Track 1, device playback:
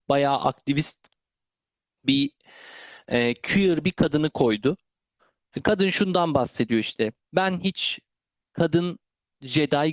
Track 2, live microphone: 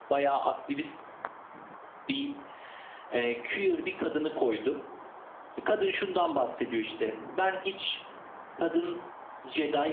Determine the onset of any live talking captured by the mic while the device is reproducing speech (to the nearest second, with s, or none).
none